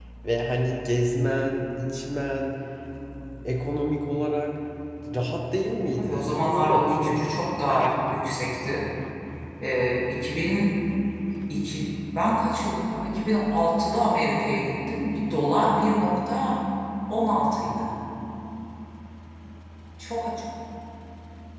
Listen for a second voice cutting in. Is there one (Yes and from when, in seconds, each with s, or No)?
Yes, from 6.0 s